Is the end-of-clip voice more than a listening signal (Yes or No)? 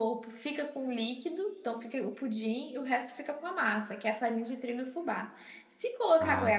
No